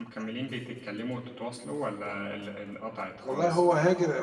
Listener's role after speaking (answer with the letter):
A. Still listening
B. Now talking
B